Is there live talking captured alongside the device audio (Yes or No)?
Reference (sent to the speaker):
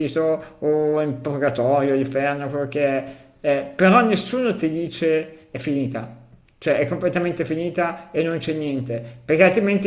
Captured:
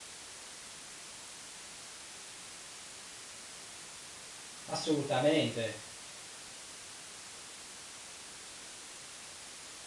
Yes